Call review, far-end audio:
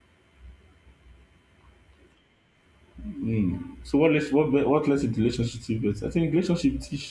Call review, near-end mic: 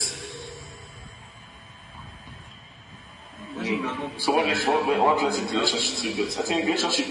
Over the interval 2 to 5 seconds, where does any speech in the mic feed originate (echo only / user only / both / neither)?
both